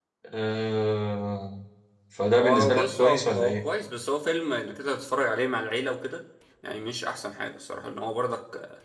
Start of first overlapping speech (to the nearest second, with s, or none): 2 s